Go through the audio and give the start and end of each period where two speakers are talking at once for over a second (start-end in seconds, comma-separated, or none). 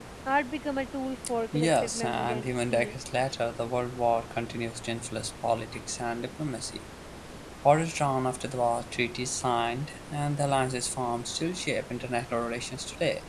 1.5-3.0